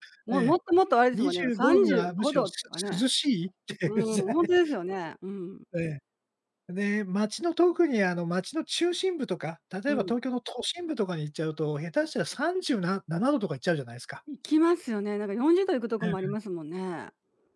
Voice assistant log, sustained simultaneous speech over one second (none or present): present